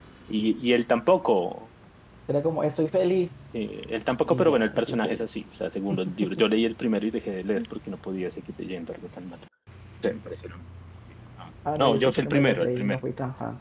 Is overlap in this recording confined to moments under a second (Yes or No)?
No